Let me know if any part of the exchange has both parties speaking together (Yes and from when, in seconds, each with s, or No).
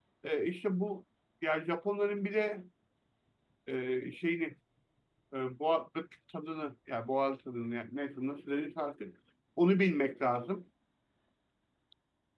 No